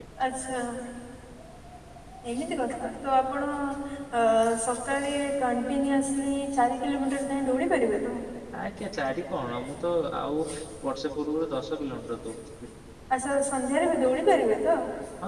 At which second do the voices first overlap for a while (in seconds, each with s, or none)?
none